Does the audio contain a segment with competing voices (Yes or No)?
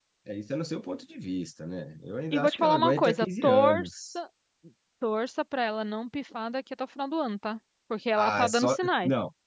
Yes